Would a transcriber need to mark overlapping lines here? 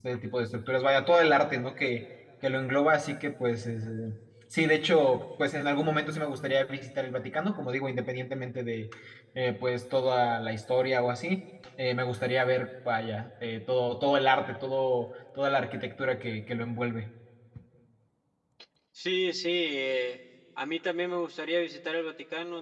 No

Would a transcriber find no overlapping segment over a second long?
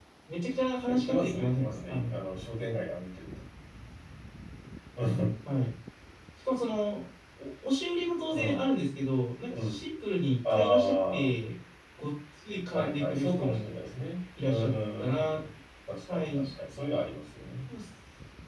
No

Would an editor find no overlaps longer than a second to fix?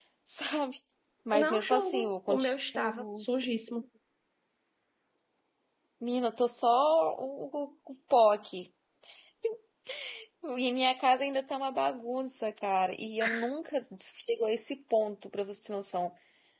No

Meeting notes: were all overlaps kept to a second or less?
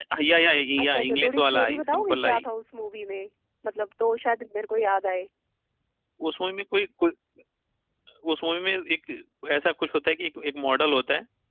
No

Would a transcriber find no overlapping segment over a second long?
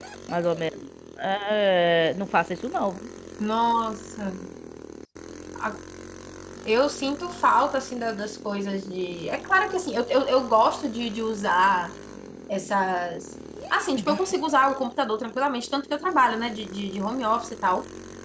Yes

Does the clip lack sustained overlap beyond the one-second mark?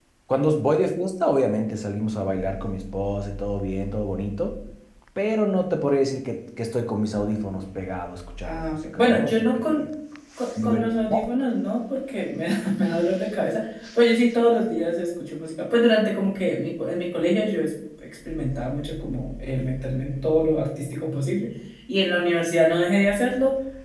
No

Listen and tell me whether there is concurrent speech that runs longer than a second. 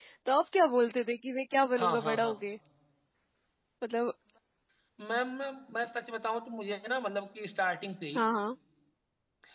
No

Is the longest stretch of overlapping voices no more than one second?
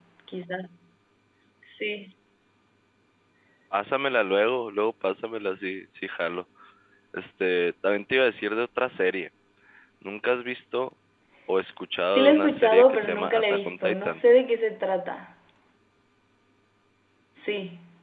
No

